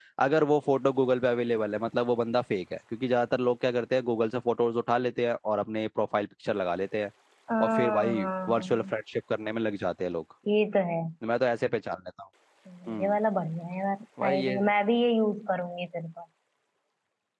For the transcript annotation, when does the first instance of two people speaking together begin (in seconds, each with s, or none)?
7.6 s